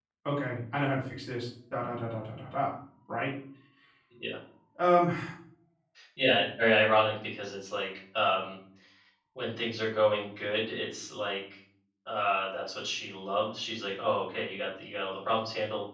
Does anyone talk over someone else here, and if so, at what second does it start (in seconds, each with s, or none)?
none